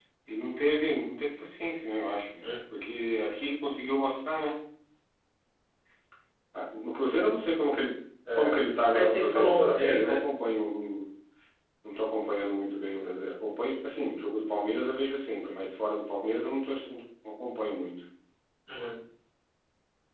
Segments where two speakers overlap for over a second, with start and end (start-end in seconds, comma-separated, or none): 8.9-10.2